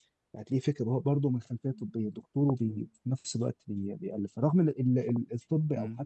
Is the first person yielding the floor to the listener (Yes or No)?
No